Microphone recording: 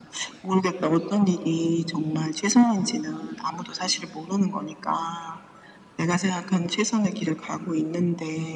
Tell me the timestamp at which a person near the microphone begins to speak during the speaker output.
none

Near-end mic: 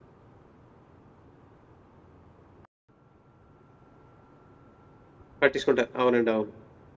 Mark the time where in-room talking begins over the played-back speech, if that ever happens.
5.4 s

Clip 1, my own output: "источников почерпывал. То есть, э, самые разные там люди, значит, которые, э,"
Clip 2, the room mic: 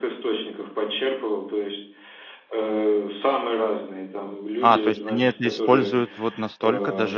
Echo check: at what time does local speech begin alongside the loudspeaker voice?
4.6 s

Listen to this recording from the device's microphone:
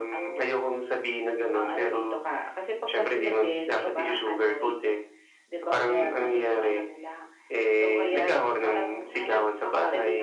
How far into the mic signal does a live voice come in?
none

